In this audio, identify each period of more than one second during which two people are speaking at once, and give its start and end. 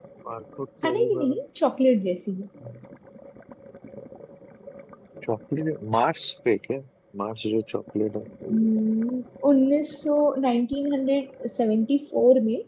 none

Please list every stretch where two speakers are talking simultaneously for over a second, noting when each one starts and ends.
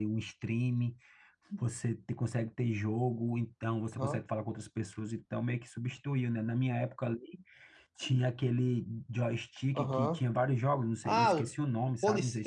none

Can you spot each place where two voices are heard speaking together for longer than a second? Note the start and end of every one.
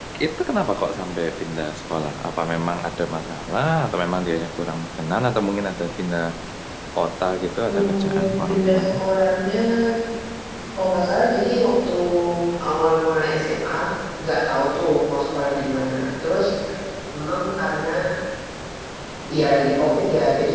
7.7-9.0

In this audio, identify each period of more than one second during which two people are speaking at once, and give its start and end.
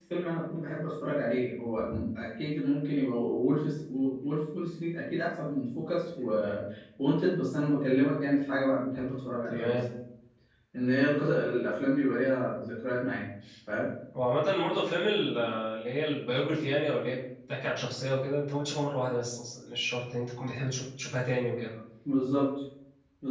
none

